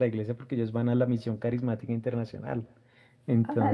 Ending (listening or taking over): listening